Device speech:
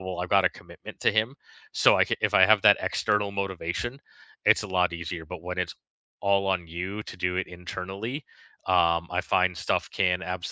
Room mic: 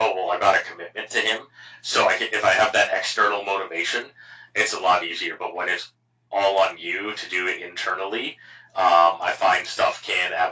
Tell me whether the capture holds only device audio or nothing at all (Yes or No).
Yes